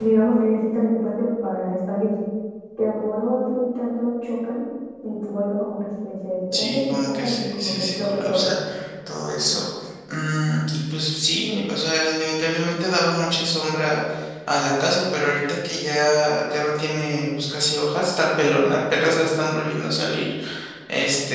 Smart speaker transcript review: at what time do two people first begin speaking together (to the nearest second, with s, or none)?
7 s